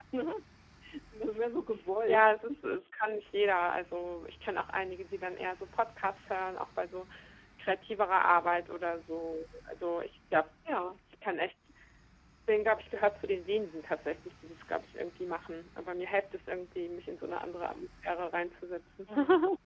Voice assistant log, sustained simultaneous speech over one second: none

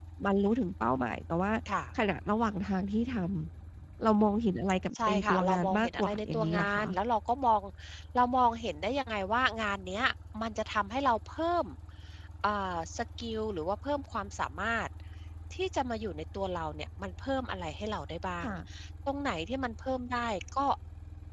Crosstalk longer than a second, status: present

